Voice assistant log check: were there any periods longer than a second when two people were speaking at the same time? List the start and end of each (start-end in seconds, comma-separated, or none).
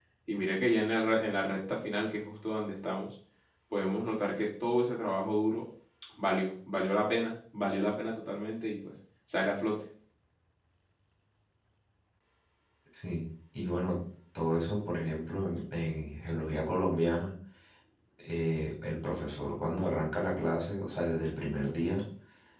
none